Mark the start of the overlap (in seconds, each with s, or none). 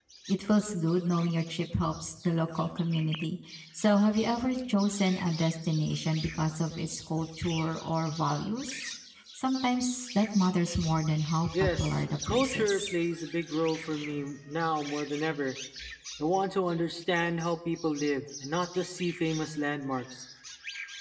11.5 s